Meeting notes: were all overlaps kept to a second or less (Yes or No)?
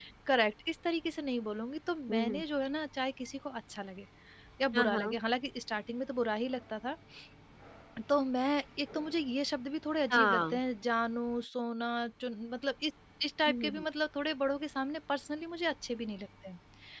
Yes